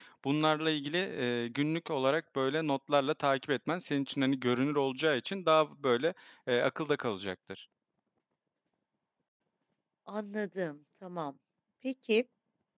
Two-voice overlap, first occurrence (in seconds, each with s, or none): none